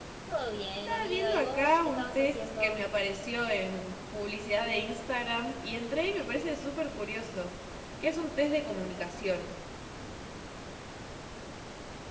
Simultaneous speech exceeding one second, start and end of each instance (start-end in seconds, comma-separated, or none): 0.9-2.8